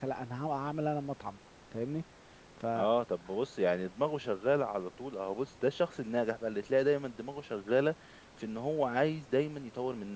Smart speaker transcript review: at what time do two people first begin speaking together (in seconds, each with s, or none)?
none